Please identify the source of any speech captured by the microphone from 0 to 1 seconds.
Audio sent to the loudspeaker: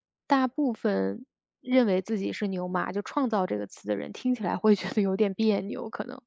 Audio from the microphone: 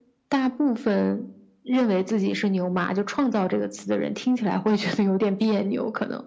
echo only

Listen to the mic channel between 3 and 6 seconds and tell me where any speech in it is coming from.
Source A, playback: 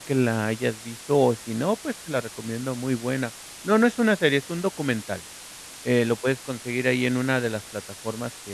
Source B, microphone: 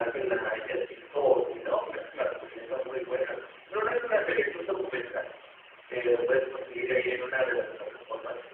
echo only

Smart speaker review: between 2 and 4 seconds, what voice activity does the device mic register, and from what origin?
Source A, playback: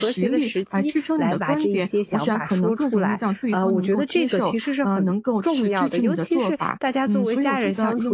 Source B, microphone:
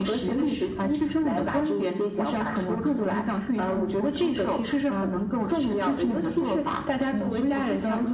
echo only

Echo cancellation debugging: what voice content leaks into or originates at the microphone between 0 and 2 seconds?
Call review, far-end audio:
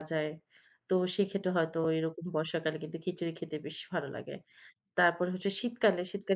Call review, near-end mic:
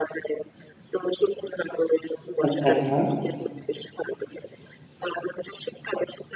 echo only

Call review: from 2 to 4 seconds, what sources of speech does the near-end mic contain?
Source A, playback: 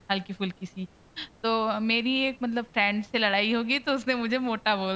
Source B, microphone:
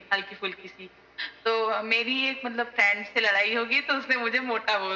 echo only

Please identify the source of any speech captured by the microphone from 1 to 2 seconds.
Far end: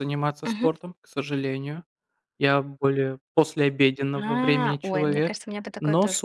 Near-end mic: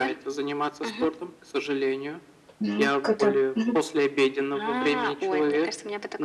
echo only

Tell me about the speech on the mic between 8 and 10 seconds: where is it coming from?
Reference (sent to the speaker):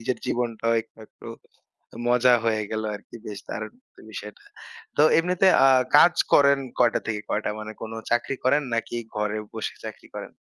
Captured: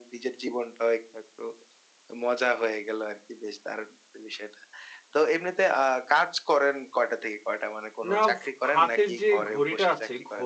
both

